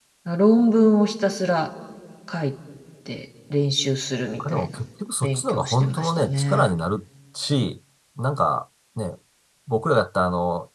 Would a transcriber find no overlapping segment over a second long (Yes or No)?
No